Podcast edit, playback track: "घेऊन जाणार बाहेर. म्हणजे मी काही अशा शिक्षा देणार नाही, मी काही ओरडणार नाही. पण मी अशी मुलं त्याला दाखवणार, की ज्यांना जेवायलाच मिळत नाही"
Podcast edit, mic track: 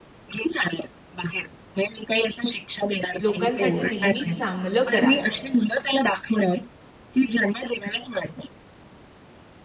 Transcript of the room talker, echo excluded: लोकांसाठी नेहमी चांगलं करा

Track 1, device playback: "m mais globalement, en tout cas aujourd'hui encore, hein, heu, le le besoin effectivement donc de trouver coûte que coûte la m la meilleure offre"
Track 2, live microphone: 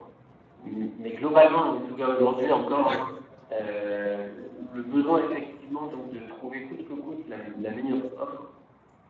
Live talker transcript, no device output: D'accord.

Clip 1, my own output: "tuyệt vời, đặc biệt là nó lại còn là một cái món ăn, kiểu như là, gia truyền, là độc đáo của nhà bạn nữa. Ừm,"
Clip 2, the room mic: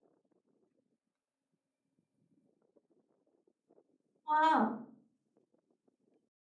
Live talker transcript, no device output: Wow,

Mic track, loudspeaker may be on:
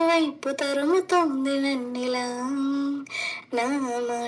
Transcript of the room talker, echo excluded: none

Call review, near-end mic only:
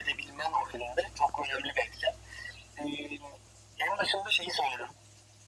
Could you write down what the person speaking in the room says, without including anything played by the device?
none

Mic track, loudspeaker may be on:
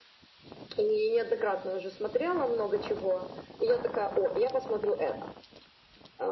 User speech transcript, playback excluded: none

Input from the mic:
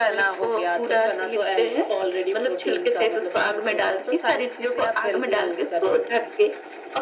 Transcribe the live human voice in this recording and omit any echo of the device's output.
none

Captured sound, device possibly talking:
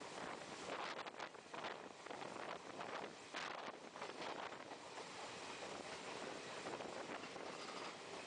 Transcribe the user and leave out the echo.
none

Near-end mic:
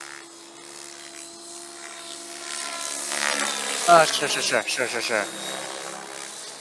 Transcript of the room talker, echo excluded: 啊，是是是是是是，

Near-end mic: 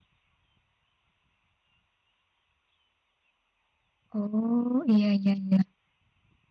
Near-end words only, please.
Oh, iya, iya, iya.

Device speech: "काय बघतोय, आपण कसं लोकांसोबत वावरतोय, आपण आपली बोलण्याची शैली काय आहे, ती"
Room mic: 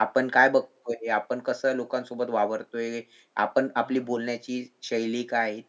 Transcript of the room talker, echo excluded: हां.

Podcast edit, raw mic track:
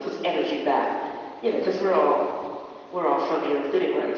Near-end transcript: none

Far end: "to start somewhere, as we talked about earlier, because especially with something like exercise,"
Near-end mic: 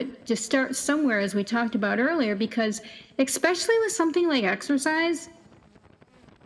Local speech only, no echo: none

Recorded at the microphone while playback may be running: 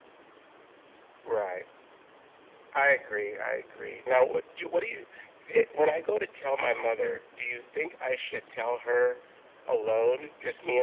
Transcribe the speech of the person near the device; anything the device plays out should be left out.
none

